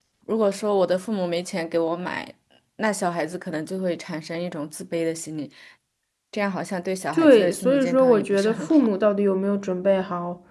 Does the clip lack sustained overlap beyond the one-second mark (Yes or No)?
No